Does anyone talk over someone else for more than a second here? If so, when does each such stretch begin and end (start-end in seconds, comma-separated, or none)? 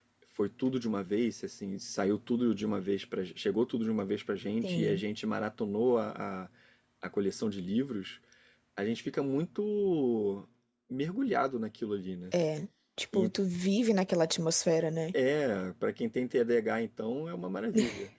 none